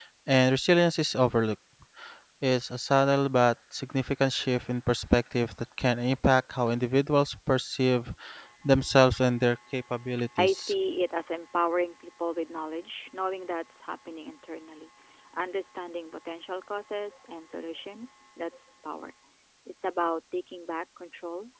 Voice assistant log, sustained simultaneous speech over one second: none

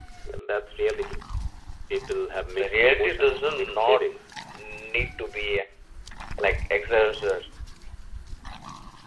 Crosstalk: present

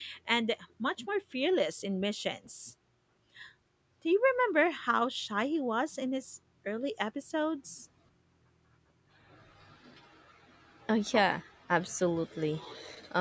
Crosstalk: none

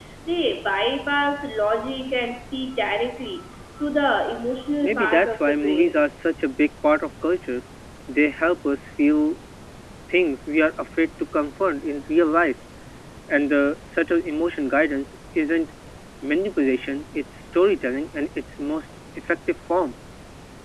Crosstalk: present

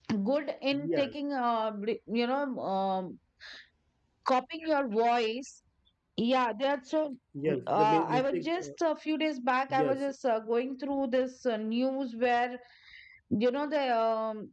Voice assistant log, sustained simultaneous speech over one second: present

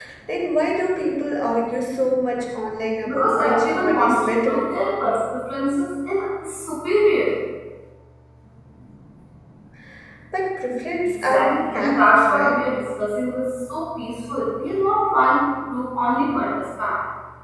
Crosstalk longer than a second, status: present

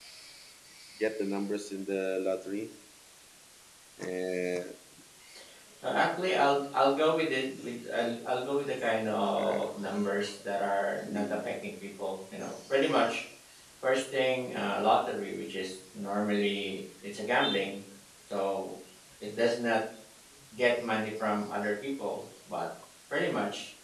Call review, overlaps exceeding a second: none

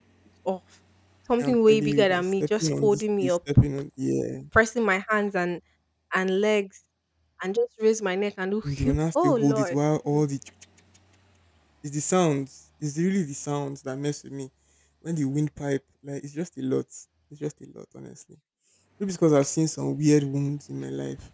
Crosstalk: present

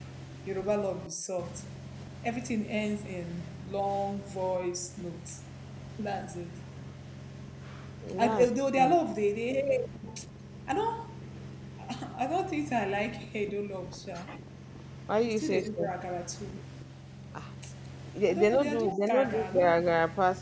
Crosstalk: present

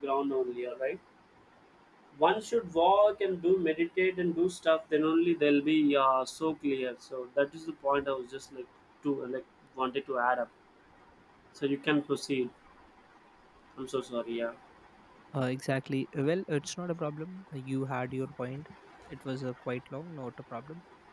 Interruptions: none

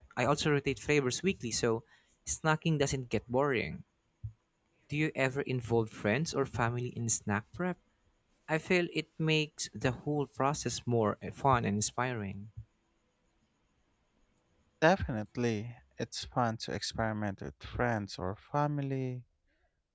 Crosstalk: none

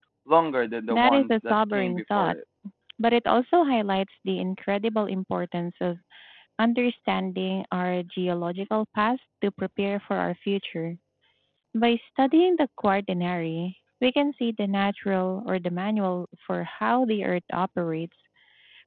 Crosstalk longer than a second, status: present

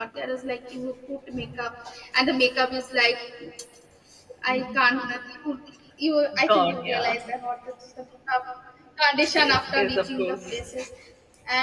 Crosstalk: present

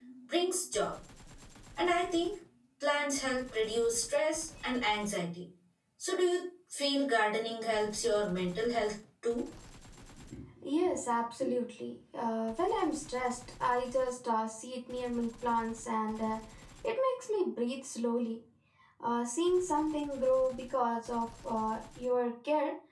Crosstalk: none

